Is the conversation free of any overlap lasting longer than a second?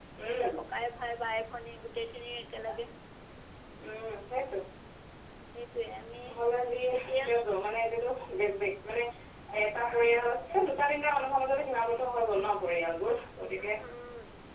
Yes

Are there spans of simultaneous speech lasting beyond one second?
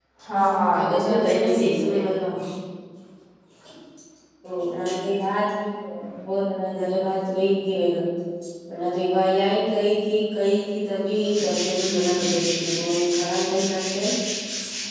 Yes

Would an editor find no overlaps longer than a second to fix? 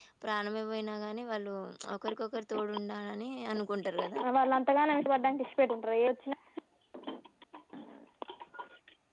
Yes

